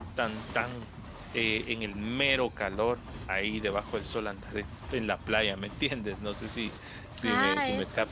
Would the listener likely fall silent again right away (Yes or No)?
No